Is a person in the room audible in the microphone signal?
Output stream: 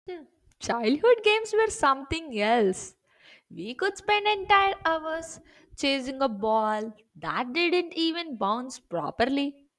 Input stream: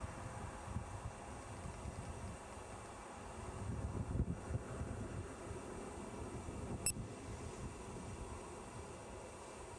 No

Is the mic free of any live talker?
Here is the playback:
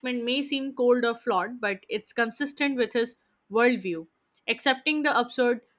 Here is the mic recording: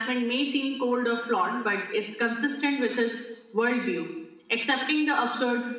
Yes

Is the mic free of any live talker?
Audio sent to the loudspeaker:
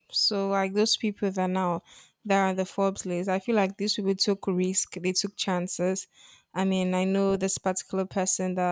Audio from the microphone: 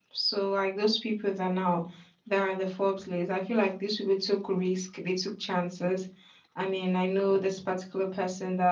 Yes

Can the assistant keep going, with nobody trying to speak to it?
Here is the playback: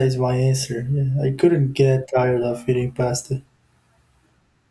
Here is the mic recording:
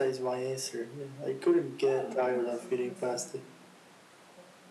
No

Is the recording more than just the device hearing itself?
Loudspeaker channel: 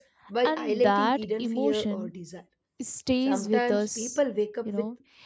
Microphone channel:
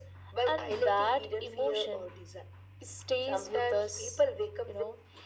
No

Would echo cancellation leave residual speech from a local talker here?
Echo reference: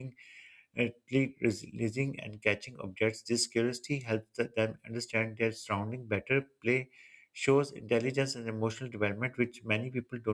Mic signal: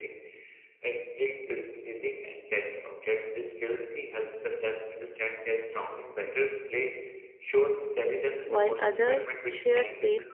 Yes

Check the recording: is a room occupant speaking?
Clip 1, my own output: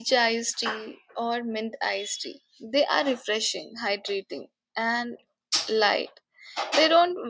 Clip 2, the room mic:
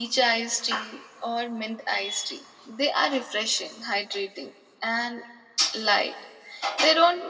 No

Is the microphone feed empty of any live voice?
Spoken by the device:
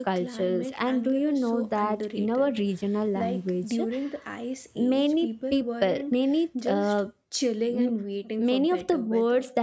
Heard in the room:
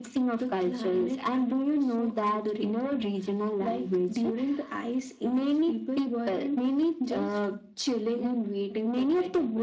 Yes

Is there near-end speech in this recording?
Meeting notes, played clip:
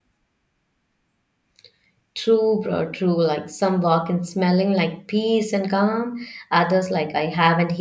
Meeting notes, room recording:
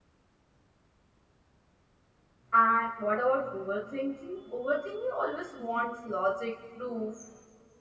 Yes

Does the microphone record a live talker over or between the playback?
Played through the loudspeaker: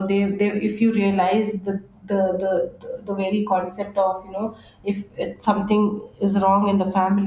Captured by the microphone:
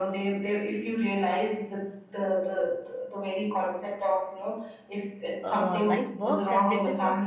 Yes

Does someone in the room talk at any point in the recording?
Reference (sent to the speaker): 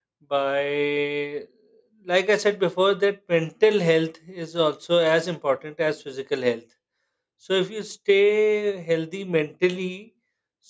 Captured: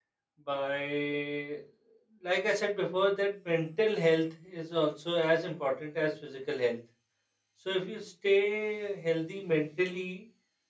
No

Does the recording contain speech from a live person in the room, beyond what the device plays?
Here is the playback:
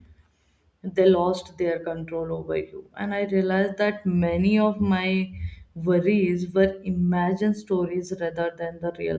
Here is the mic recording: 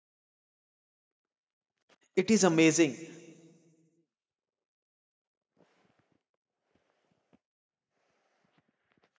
Yes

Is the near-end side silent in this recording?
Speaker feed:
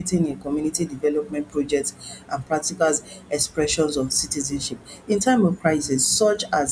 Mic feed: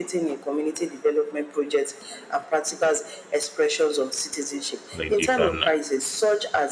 No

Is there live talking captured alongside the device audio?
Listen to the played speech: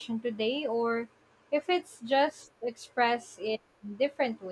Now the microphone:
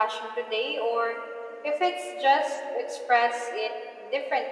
No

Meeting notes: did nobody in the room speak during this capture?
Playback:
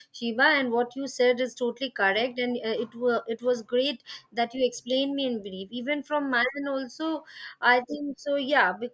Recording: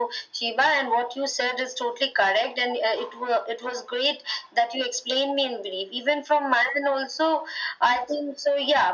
Yes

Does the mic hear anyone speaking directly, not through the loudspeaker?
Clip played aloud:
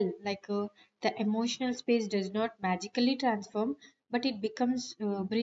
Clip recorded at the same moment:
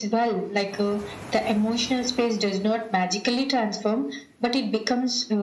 No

